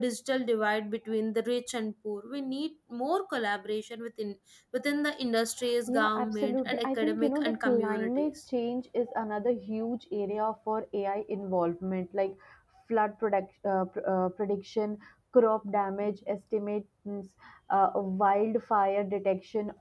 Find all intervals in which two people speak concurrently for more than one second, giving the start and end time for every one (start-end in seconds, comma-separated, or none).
5.9-8.4